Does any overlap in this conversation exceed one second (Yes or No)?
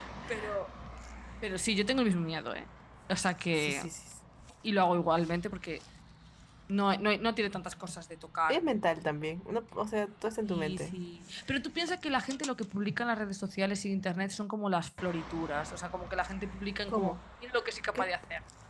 No